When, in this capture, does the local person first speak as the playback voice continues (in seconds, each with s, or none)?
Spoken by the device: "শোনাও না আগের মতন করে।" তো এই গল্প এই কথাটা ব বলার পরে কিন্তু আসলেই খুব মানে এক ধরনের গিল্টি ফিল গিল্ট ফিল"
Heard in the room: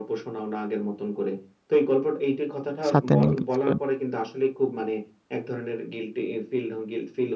2.9 s